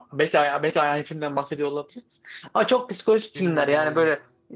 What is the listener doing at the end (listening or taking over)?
listening